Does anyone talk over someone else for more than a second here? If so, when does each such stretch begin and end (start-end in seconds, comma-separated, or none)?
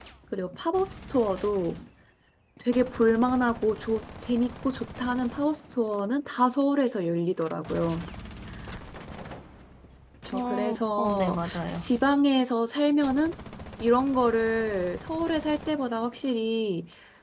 10.3-11.8